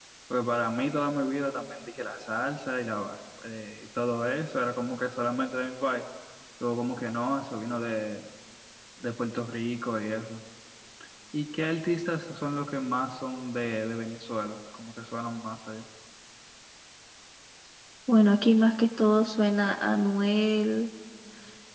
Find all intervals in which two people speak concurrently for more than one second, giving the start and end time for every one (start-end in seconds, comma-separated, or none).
none